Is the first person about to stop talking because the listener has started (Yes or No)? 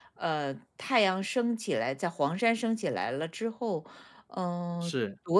No